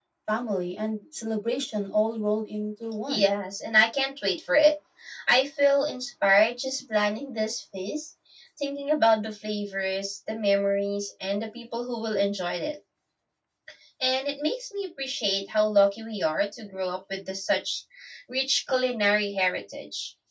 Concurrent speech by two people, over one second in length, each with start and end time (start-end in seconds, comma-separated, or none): none